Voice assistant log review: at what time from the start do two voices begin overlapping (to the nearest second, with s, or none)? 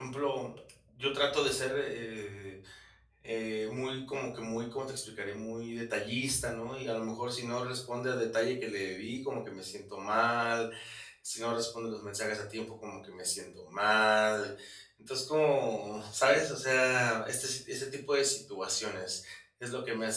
none